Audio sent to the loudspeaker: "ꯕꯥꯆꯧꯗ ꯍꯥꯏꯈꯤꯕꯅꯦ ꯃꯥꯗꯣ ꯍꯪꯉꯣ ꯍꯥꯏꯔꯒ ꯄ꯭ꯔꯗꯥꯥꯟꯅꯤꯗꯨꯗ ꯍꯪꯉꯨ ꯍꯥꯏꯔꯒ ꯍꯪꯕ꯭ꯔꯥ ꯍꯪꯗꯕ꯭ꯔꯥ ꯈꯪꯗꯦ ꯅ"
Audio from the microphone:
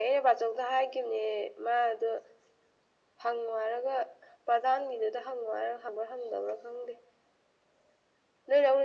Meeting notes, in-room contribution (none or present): none